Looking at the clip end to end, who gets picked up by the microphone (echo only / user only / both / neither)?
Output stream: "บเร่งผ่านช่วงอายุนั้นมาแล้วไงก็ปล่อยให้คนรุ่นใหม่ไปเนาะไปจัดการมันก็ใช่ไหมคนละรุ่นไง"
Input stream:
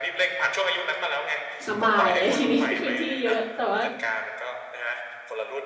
both